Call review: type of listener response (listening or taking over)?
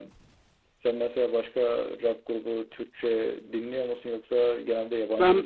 taking over